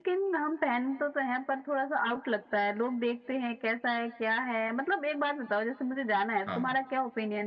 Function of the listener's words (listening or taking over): listening